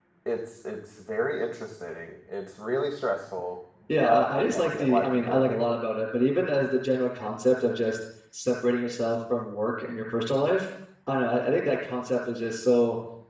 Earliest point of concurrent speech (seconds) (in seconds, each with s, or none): 3.9 s